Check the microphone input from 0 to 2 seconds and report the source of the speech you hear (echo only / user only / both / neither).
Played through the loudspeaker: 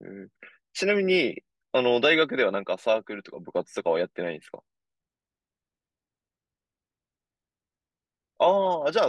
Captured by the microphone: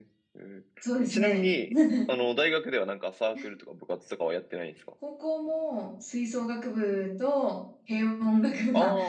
both